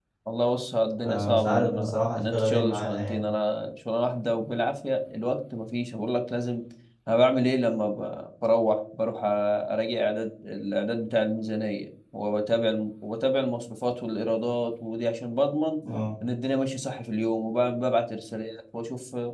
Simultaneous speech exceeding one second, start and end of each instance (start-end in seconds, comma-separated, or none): 1.0-3.3